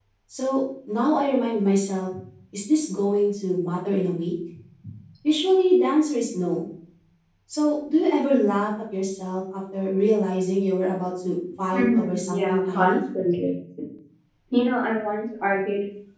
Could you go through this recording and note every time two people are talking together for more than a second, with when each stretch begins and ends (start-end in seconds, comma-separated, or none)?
11.7-13.0